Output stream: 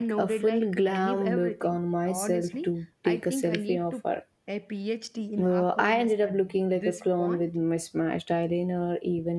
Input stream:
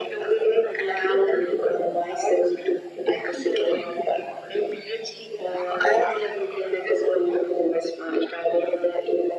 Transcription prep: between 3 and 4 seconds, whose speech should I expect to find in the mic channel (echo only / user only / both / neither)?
echo only